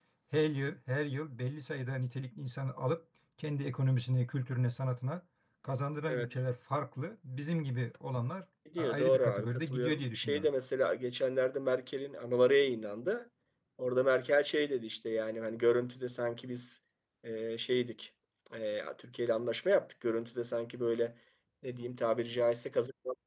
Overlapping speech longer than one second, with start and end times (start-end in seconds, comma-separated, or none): 8.8-10.5